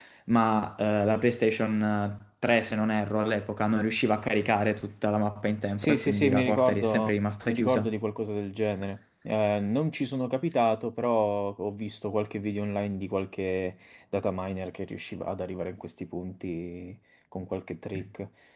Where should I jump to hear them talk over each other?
5.8 s

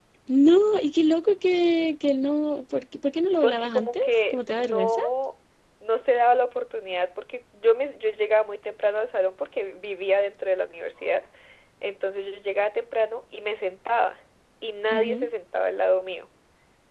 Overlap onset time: 3.4 s

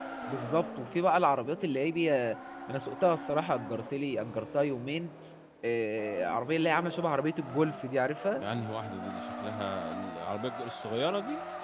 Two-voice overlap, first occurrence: none

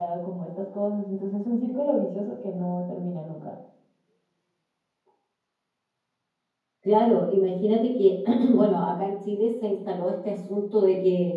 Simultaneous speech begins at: none

